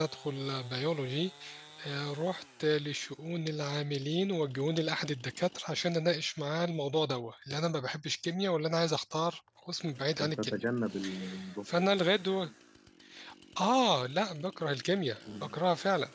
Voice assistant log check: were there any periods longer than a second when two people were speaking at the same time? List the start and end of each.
none

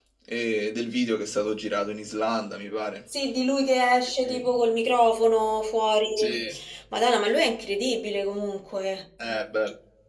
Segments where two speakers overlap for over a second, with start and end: none

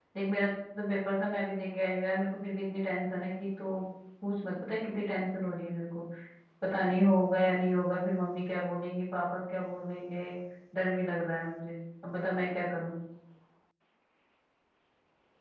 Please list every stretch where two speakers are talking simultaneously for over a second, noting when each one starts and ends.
none

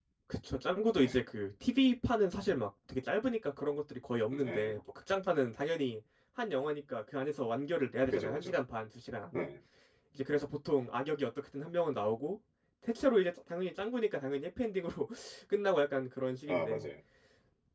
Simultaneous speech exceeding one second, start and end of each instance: none

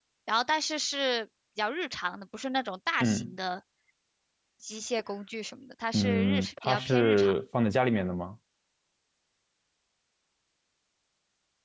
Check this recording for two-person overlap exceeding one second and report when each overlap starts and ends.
5.9-7.3

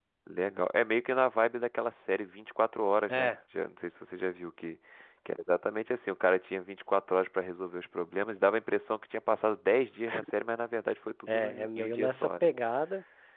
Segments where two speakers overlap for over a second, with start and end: 11.3-12.5

